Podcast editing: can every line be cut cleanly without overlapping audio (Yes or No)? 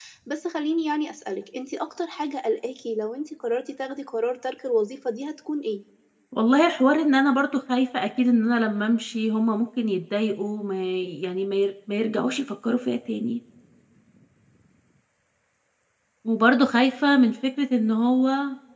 Yes